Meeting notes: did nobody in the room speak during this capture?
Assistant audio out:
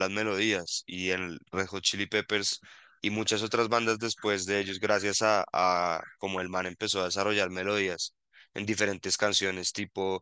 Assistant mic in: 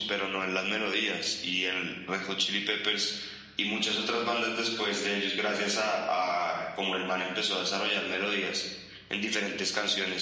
Yes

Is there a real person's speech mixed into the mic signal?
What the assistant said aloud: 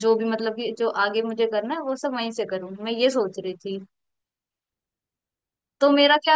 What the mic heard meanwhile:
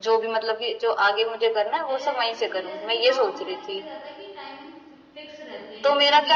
Yes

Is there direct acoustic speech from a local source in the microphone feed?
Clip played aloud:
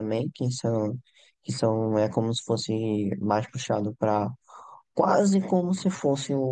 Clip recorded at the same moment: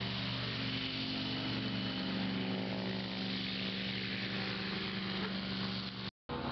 No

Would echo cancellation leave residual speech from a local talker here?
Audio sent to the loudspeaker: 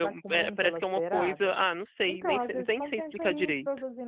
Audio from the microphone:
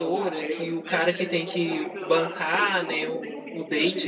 Yes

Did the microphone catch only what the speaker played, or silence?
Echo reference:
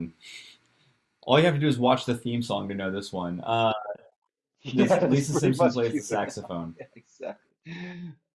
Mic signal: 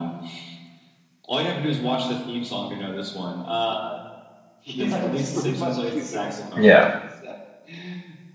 No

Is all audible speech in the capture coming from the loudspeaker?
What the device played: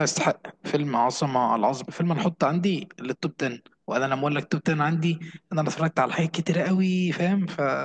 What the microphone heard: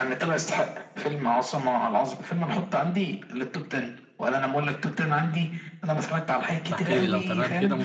No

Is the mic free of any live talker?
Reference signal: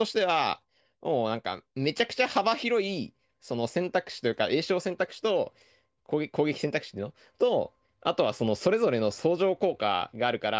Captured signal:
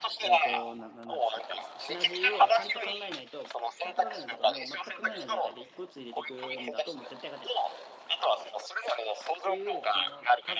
No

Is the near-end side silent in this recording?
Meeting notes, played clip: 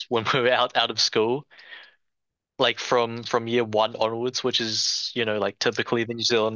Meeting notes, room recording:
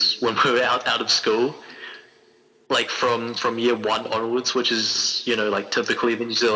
Yes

